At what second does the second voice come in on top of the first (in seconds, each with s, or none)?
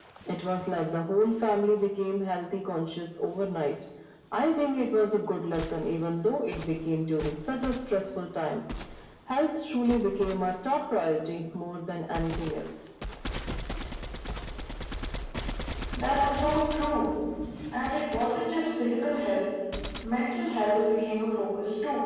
none